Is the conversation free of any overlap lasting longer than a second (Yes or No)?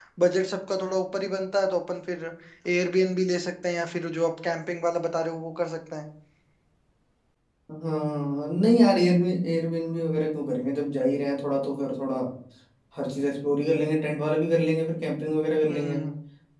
Yes